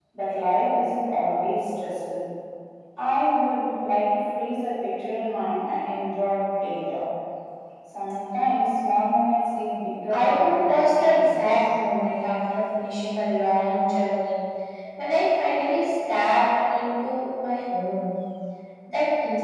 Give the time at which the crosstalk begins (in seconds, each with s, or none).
10.1 s